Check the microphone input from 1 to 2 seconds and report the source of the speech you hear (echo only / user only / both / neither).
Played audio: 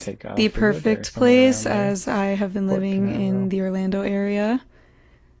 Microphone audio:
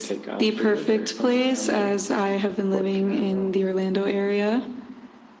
echo only